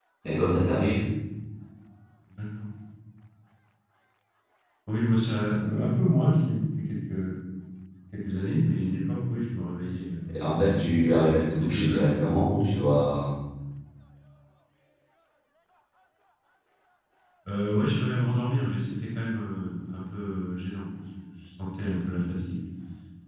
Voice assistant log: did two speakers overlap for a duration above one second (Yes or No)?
Yes